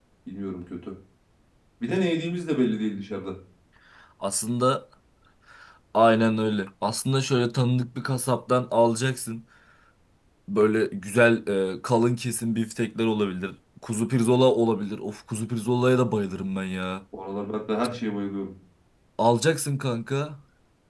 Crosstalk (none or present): none